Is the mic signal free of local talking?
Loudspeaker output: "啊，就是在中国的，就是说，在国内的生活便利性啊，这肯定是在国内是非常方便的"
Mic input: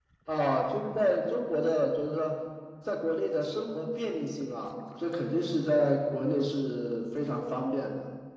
Yes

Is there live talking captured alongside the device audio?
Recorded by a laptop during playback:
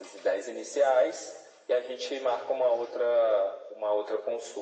No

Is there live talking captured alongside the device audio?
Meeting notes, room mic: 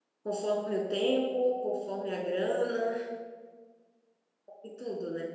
Yes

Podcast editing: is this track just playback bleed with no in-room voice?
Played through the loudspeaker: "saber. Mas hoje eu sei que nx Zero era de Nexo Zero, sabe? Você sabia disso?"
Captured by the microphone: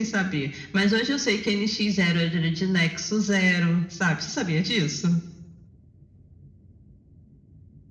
Yes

